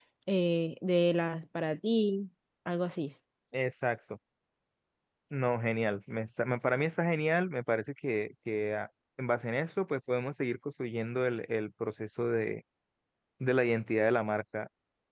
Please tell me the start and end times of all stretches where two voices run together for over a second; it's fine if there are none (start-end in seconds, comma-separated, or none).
none